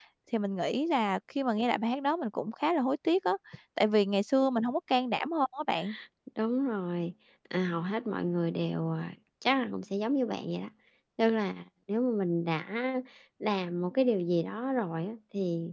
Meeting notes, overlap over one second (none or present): none